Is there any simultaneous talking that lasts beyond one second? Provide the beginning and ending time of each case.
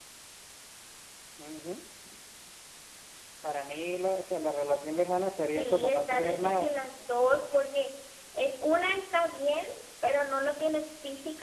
5.5-6.7

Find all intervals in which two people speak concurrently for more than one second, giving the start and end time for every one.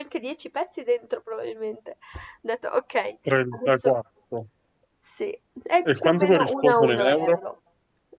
5.8-7.4

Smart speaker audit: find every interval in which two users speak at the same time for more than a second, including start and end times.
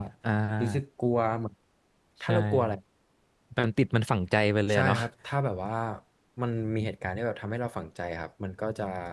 none

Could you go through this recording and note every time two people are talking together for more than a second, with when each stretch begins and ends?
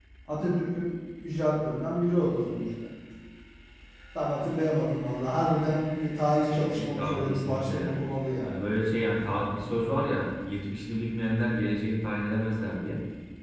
6.6-8.0

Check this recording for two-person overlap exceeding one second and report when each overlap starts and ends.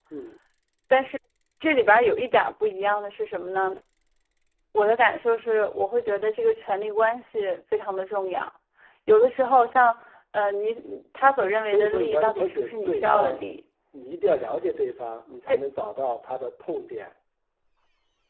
11.4-13.4

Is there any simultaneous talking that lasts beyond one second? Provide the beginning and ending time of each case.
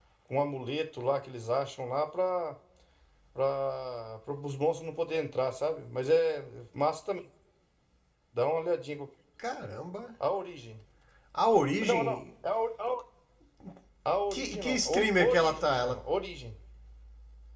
14.3-16.0

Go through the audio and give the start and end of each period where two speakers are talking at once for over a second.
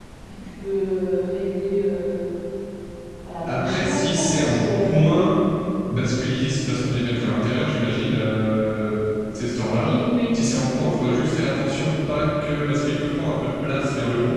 3.5-5.0

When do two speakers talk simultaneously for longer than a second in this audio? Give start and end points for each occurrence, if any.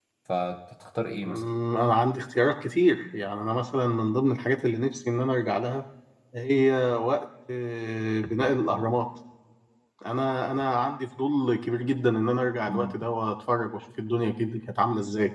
none

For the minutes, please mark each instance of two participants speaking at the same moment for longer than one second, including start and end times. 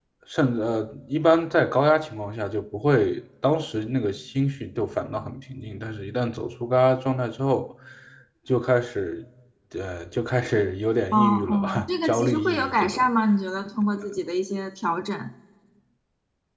11.1-13.1

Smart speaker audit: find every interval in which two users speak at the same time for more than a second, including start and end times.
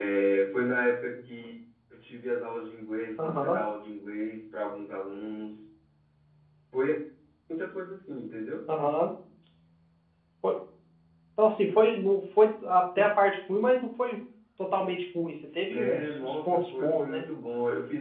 15.7-17.2

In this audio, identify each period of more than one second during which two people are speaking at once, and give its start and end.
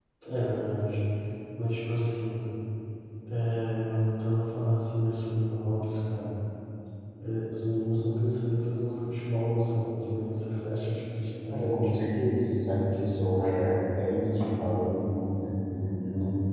none

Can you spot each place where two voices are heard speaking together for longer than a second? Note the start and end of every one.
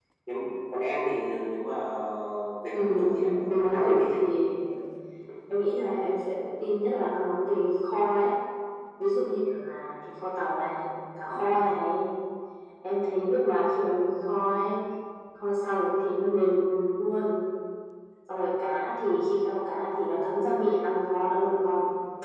2.7-4.2

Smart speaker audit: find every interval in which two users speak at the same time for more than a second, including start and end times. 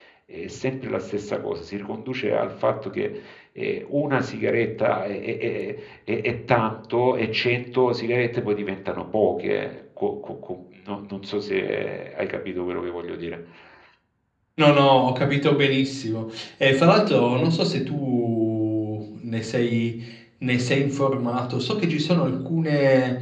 none

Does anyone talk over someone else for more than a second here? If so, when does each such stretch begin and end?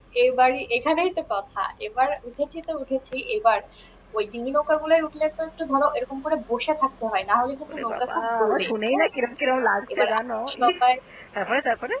7.7-9.1

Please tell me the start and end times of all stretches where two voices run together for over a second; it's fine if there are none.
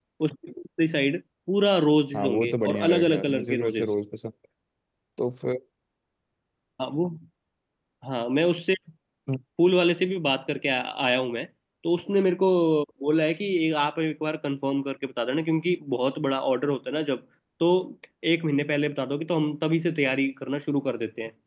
2.2-3.9

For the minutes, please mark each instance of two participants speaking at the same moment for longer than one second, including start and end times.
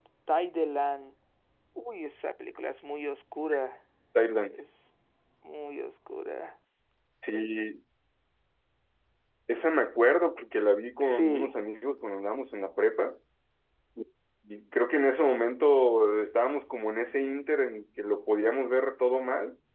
none

